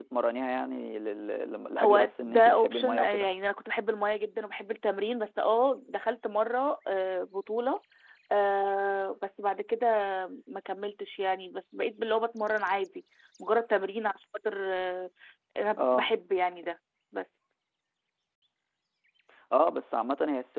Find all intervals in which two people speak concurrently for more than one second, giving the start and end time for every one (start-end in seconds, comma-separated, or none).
1.8-3.3